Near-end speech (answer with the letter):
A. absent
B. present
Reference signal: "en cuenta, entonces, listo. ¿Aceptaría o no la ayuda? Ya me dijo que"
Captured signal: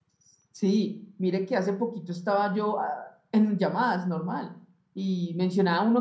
B